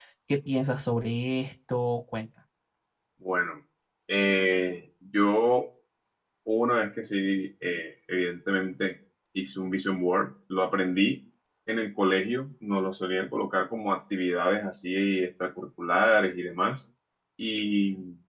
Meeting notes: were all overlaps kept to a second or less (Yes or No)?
Yes